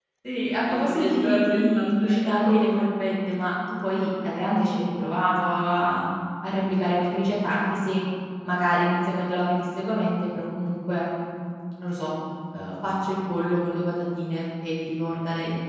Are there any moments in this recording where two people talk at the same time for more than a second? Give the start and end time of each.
0.7-2.8

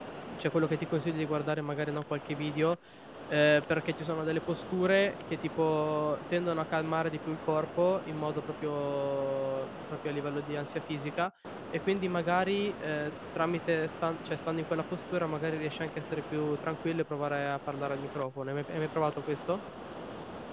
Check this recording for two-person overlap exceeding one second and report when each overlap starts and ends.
none

